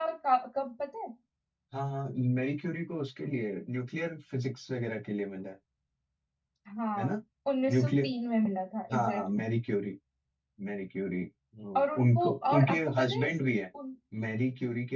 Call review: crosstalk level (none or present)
present